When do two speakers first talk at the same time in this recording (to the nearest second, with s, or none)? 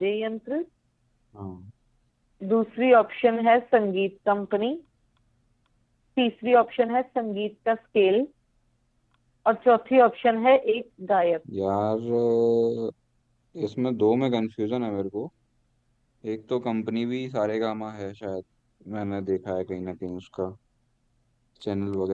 none